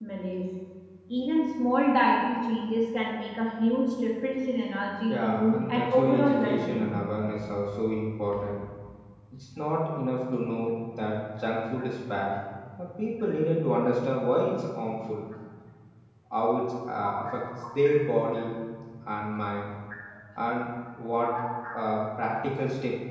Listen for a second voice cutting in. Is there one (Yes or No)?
Yes